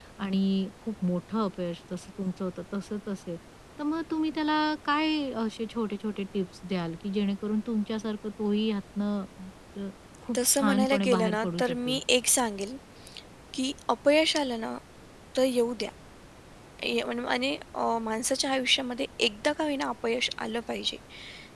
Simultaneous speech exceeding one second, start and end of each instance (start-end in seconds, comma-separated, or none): 10.4-12.0